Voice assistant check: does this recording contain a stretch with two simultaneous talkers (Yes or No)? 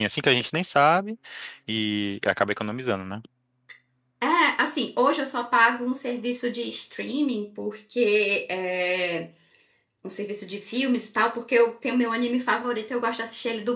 No